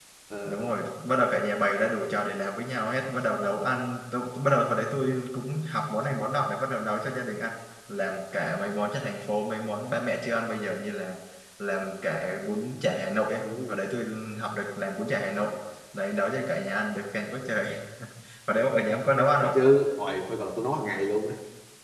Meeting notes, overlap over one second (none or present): none